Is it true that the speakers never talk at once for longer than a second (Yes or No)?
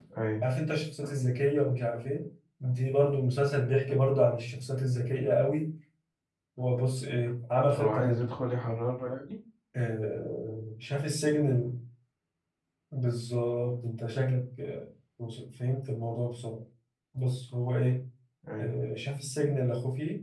Yes